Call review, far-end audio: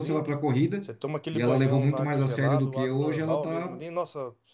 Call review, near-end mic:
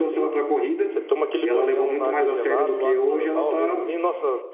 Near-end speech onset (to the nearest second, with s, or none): none